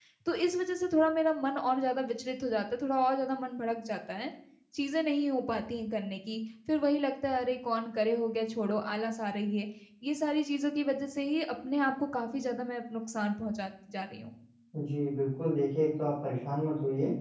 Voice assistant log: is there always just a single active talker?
Yes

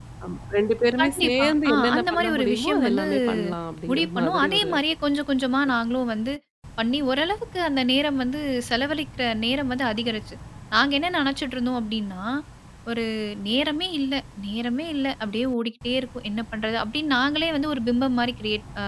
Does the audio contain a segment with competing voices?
Yes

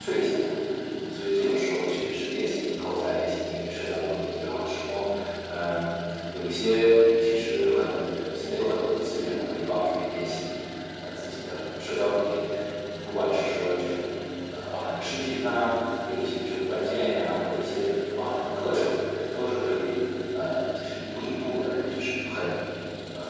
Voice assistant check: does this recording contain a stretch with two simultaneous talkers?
No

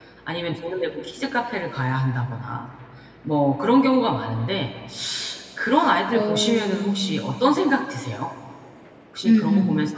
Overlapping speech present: Yes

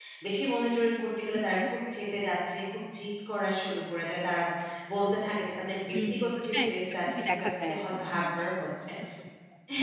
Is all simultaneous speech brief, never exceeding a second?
No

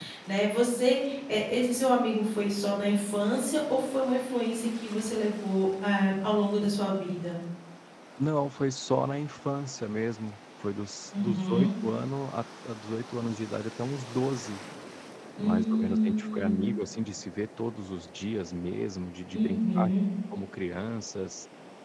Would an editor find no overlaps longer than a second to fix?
No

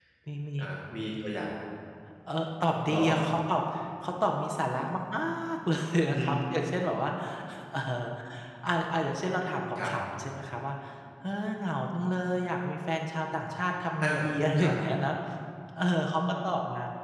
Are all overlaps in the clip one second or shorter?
Yes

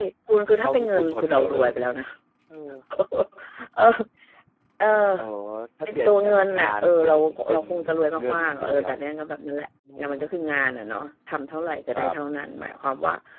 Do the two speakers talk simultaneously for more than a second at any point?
Yes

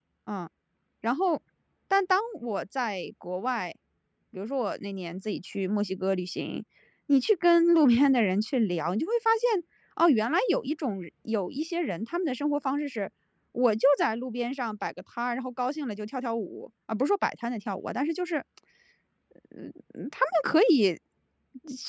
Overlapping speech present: No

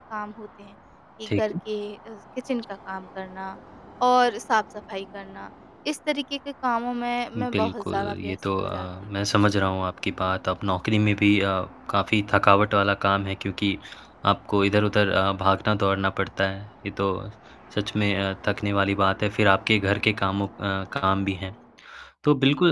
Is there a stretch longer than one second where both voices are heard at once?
Yes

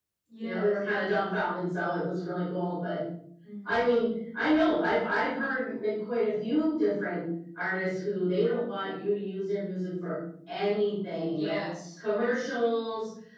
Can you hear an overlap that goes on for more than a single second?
No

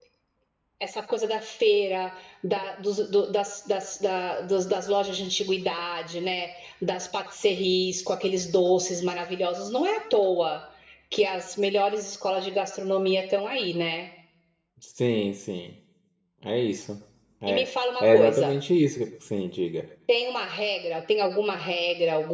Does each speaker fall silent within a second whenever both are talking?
Yes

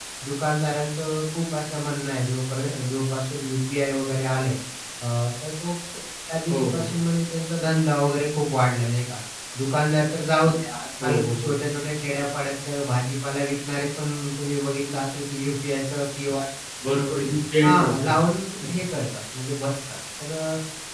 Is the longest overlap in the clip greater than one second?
No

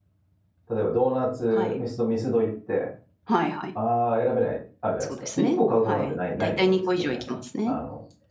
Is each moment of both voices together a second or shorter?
No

